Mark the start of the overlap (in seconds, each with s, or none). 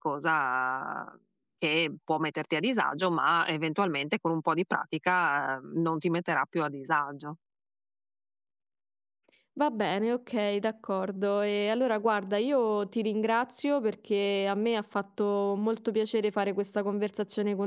none